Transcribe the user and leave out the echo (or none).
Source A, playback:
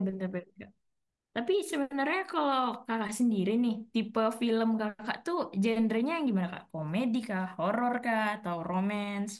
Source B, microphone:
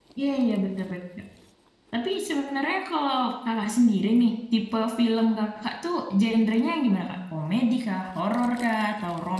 none